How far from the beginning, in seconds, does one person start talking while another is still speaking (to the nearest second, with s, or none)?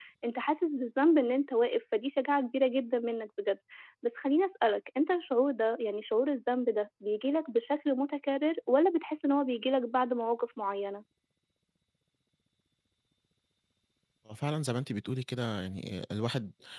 none